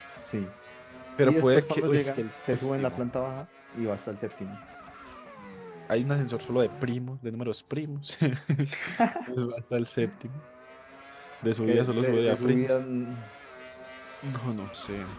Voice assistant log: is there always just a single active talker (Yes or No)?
No